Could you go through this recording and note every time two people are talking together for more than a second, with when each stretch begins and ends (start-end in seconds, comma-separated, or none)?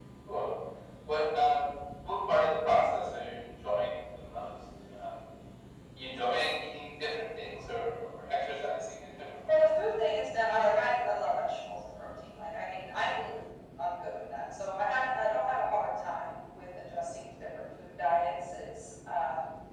none